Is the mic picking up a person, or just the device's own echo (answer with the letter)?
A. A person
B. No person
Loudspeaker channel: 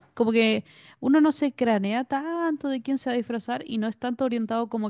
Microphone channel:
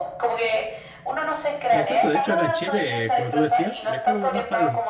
A